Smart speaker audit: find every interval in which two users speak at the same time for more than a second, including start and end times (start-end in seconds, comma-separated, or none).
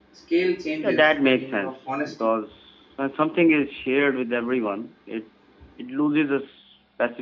0.8-2.1